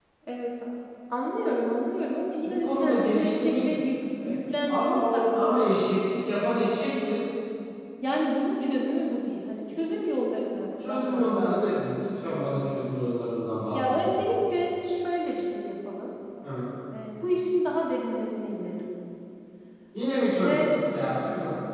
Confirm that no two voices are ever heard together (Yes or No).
No